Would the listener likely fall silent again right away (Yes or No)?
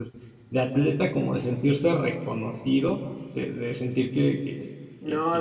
No